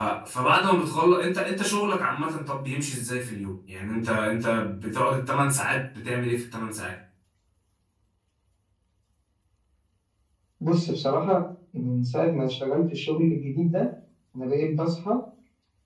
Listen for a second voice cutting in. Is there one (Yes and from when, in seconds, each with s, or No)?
No